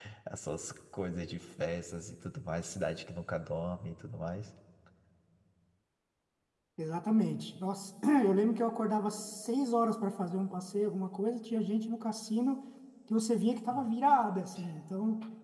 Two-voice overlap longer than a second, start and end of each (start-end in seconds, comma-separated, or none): none